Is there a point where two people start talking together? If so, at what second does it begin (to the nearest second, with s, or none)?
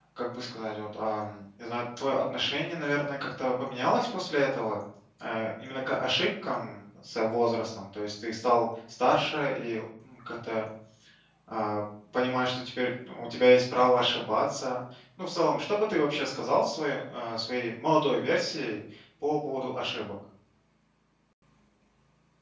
none